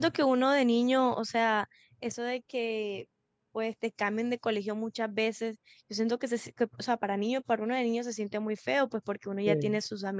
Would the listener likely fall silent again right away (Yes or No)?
Yes